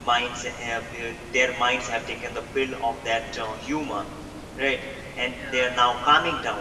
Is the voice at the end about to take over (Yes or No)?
No